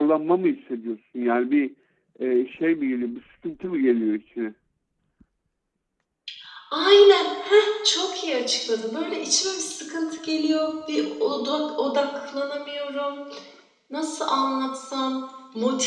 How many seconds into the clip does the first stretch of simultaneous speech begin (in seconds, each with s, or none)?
none